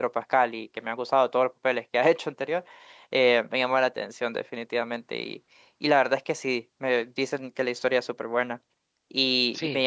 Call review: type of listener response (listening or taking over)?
listening